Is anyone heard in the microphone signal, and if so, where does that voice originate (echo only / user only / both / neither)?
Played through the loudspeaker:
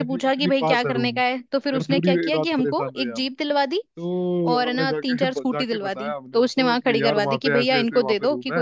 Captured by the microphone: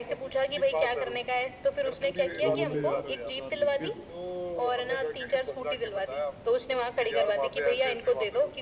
both